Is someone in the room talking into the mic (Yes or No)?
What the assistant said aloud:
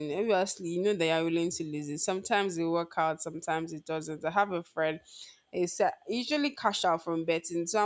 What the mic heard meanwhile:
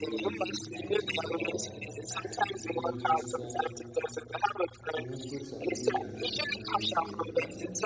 Yes